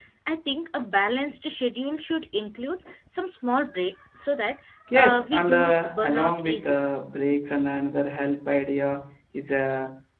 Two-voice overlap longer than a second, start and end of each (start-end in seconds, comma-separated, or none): 4.9-6.8